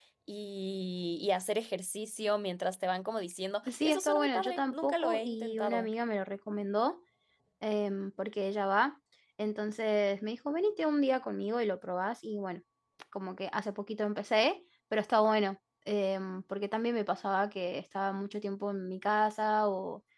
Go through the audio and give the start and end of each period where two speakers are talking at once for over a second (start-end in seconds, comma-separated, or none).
3.7-5.9